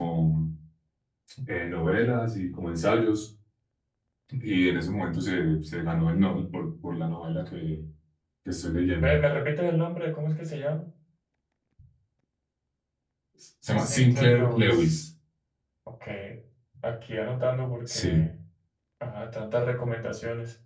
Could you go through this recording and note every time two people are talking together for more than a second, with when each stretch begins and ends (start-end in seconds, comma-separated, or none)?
13.8-15.0